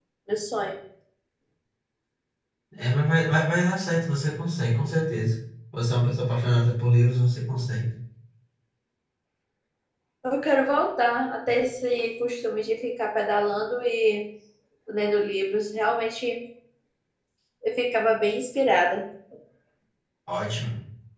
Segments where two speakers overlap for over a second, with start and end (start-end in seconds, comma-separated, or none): none